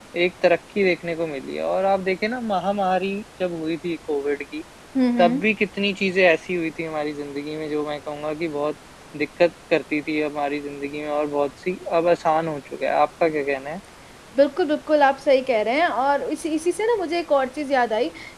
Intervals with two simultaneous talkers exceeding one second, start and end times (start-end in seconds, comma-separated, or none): none